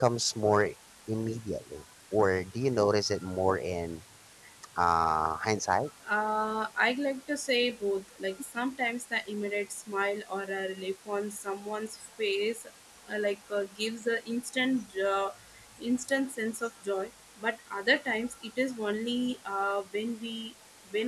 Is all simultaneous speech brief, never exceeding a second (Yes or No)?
Yes